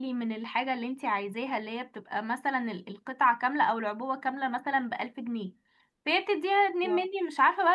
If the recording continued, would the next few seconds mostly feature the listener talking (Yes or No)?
No